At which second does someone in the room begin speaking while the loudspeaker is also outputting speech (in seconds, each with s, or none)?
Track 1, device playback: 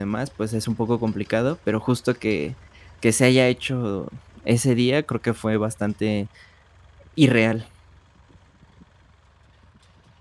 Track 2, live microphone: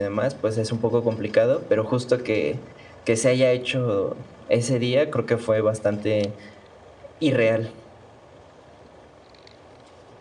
none